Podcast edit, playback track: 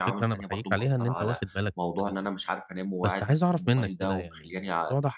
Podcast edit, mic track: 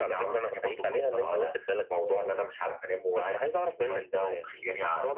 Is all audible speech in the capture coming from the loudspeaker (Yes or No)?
Yes